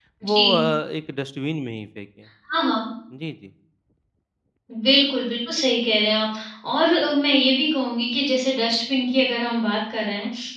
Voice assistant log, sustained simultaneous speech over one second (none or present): none